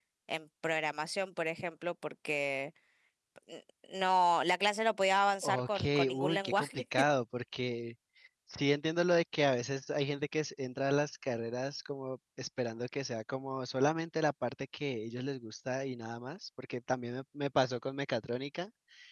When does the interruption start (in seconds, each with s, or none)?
5.4 s